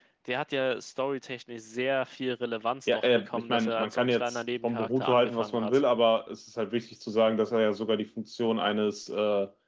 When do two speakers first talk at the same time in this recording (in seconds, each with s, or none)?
2.9 s